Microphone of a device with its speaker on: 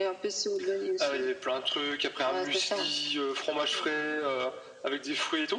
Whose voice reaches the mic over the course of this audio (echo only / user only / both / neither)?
echo only